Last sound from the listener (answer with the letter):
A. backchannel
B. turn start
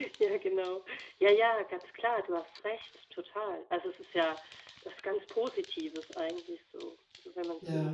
B